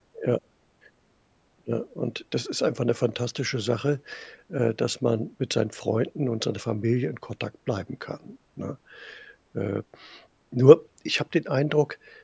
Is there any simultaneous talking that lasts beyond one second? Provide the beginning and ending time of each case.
none

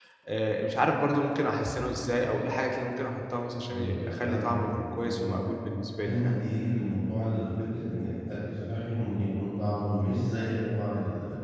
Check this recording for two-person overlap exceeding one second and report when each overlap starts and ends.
3.7-5.3

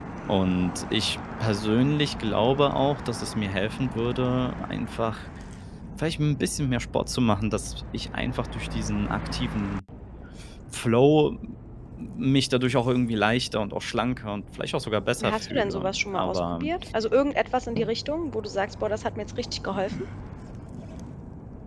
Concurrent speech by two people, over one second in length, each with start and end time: 15.3-16.6

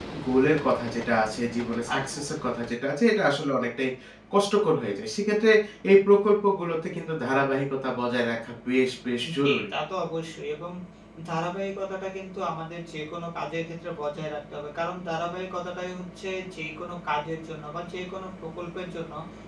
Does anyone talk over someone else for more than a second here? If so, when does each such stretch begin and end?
none

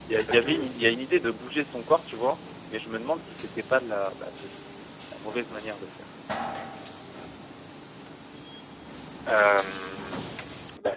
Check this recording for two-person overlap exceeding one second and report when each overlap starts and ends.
none

